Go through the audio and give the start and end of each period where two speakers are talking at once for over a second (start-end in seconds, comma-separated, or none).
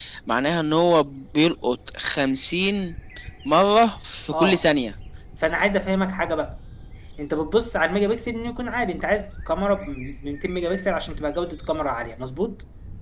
none